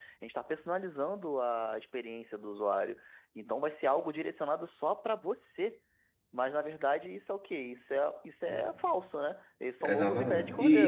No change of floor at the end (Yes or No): No